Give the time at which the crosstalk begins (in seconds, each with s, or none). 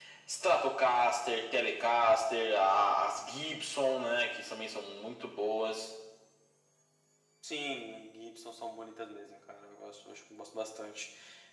none